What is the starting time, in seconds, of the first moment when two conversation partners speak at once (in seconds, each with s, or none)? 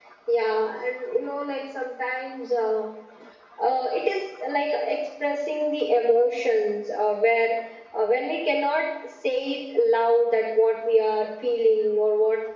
none